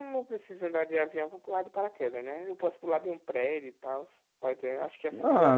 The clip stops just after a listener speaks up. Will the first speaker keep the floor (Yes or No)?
No